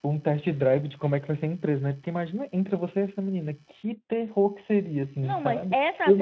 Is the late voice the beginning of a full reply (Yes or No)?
Yes